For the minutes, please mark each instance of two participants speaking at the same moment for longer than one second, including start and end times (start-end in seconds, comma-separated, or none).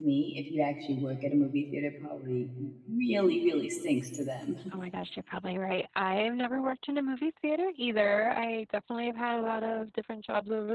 none